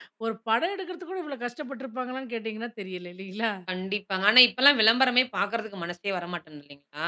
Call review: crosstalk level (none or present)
none